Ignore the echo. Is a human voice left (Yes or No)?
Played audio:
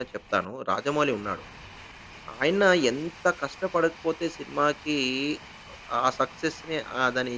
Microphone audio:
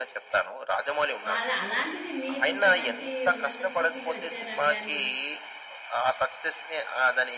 Yes